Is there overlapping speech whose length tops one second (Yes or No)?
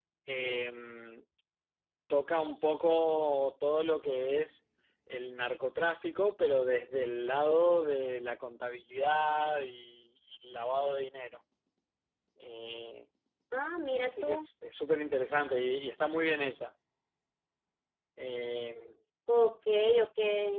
No